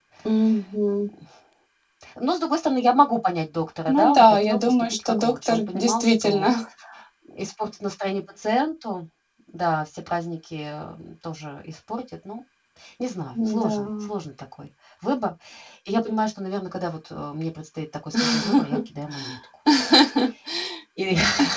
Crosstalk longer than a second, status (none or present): present